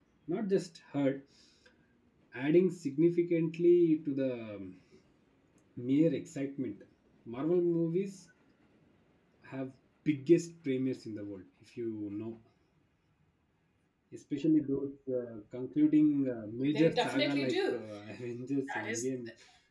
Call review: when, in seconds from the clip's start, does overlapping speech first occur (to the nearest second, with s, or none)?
17 s